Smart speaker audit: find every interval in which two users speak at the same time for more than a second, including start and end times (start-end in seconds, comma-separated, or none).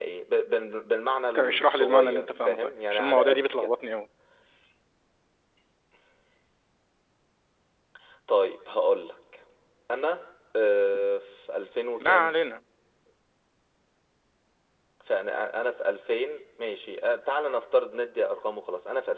1.4-3.7